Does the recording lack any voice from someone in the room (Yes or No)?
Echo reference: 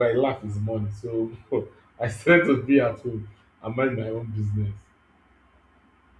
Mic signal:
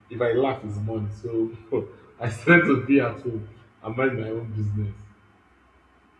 Yes